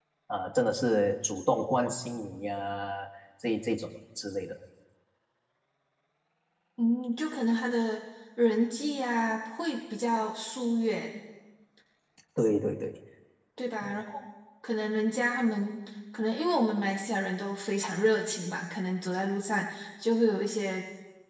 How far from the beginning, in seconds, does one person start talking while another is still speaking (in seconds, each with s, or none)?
none